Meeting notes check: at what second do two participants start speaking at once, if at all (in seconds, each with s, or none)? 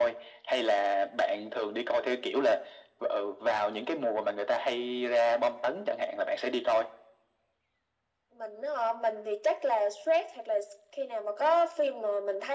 none